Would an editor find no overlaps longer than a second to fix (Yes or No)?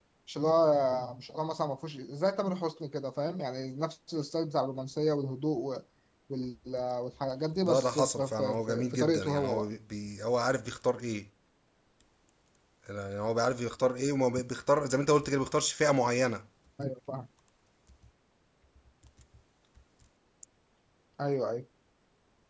No